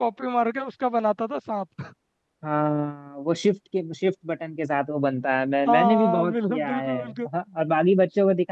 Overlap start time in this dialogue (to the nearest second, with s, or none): 6 s